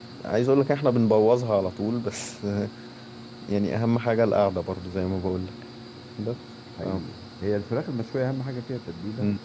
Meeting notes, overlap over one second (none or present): none